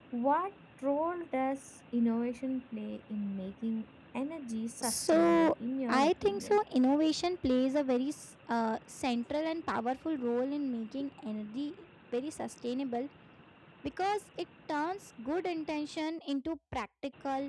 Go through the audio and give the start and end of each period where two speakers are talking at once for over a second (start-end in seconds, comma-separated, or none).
4.8-6.6